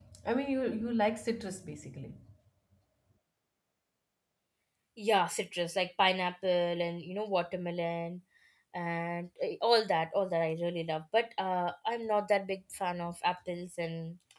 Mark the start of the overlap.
none

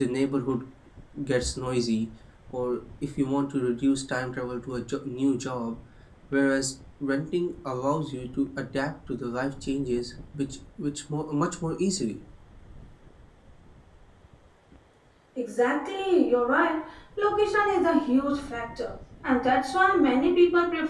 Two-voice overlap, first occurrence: none

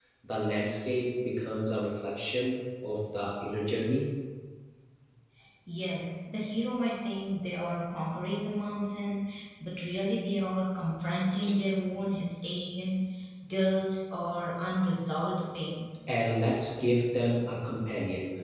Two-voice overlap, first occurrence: none

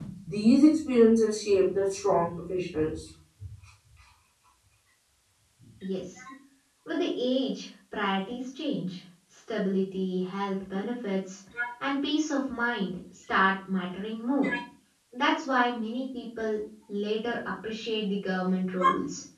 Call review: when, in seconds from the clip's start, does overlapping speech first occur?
none

